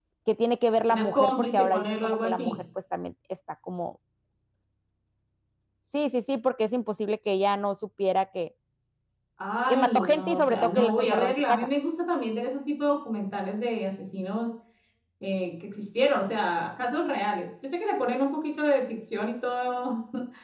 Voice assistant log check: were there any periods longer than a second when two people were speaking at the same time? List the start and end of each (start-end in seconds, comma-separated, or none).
0.9-2.5, 9.7-11.7